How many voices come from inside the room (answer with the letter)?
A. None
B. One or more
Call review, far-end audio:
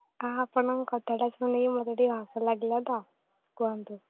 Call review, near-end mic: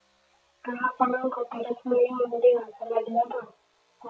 A